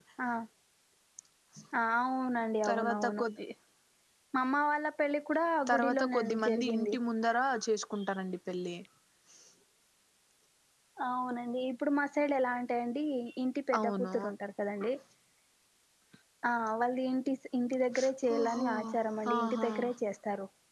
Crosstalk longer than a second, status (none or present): present